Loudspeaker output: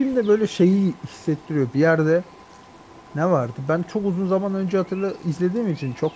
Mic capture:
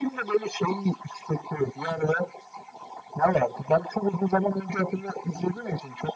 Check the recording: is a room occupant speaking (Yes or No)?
No